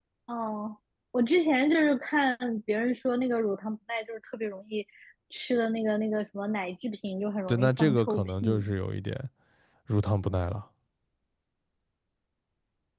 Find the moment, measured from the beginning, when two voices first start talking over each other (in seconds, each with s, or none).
7.5 s